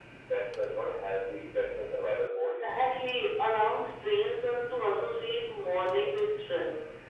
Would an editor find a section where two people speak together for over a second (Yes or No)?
No